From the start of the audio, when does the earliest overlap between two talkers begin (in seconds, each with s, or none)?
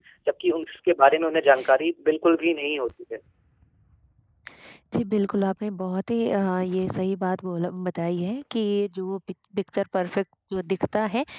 none